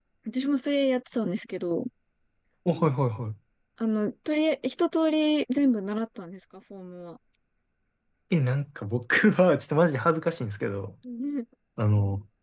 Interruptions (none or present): none